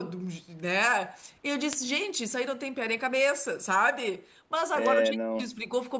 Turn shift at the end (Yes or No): No